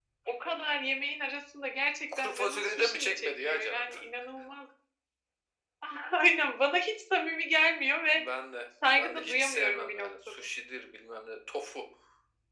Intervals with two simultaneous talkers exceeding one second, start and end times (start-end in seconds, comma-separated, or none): 2.2-3.8, 9.0-10.4